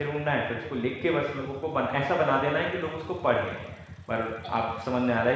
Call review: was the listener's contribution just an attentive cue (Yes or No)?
Yes